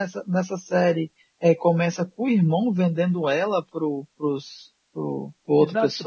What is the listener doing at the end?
taking over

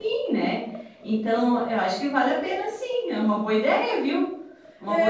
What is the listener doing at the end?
taking over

